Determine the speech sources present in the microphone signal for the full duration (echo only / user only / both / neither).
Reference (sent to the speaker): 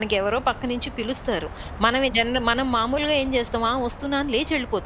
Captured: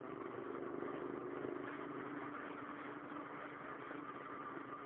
neither